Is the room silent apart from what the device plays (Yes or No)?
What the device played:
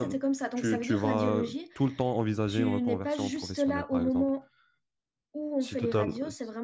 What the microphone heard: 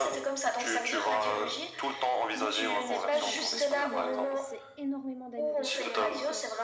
No